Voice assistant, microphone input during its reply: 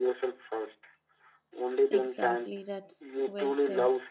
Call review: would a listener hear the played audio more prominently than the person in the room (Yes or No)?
Yes